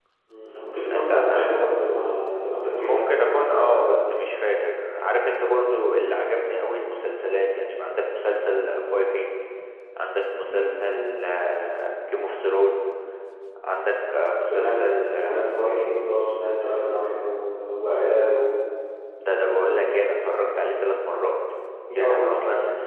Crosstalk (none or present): present